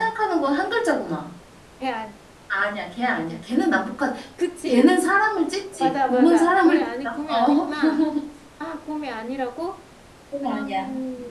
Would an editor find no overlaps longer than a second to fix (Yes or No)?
No